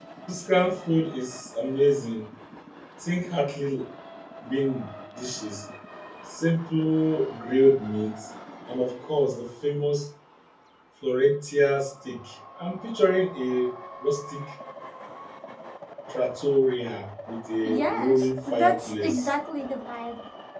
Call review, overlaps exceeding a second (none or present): present